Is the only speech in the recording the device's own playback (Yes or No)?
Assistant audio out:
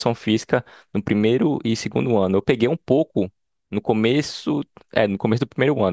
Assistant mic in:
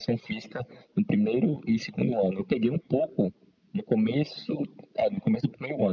Yes